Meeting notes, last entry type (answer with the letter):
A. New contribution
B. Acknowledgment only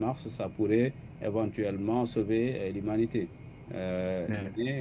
A